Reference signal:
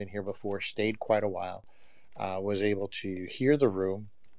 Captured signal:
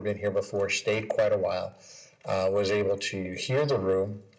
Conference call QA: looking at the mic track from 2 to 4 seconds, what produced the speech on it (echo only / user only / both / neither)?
echo only